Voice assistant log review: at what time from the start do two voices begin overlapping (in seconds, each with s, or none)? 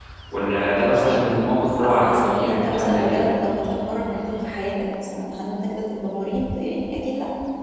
1.8 s